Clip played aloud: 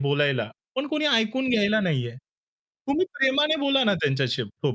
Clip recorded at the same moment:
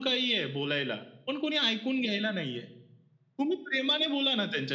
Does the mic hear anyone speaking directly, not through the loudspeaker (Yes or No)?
No